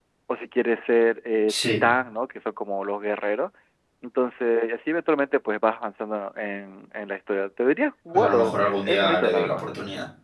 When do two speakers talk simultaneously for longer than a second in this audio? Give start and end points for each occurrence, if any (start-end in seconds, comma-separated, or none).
8.1-9.6